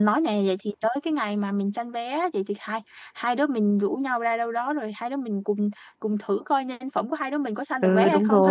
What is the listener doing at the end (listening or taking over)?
taking over